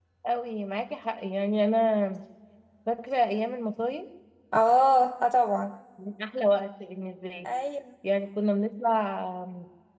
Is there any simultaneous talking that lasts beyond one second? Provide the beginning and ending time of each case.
none

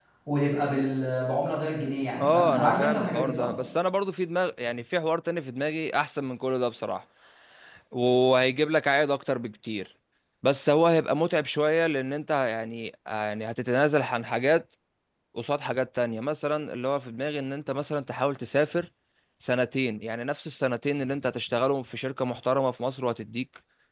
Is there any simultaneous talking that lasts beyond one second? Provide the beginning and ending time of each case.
2.2-3.5

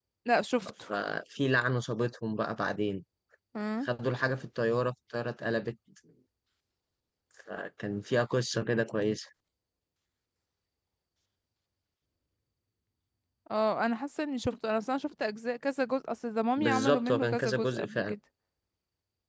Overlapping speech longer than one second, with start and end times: 16.6-18.1

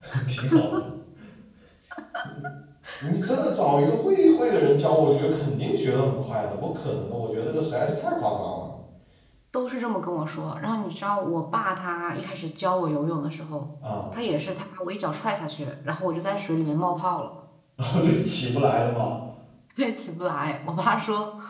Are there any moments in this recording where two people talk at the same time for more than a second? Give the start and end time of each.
none

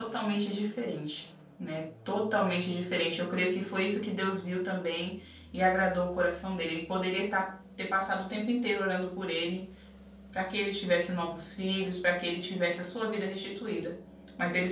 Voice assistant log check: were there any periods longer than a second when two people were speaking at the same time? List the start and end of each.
none

